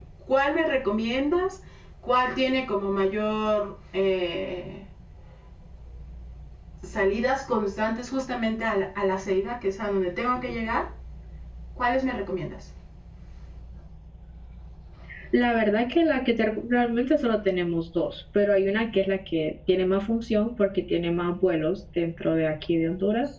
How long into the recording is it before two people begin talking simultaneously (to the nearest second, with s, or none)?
none